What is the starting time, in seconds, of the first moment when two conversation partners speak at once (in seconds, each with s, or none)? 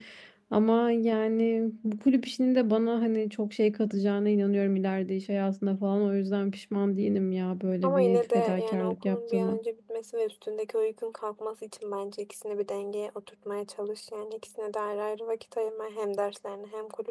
7.8 s